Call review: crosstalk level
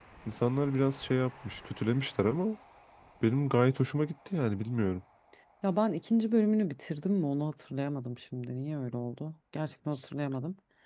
none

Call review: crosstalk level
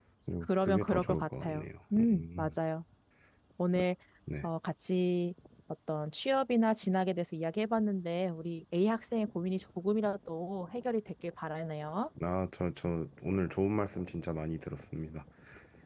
present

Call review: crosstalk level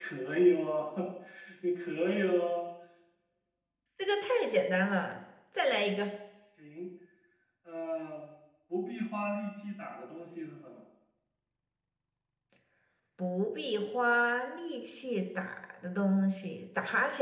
none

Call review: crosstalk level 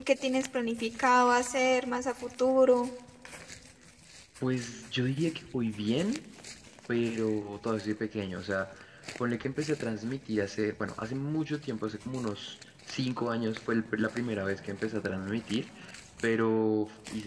none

